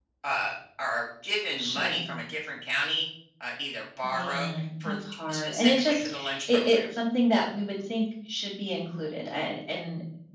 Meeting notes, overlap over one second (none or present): present